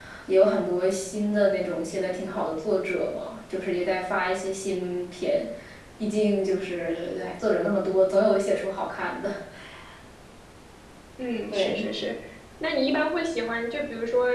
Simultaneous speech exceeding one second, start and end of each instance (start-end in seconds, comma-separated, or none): none